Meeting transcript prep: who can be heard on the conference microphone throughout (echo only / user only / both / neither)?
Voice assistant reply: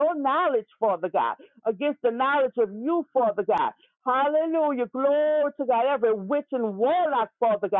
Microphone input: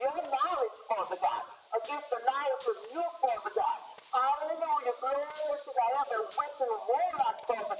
echo only